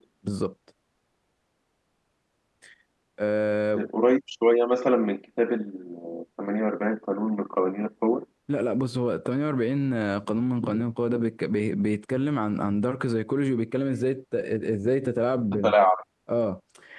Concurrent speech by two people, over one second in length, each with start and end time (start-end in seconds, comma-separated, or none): none